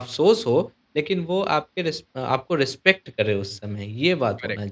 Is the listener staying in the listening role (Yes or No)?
No